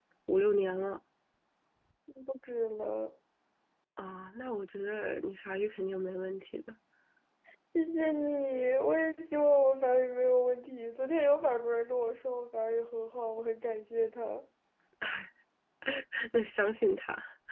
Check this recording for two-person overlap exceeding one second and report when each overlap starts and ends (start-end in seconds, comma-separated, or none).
none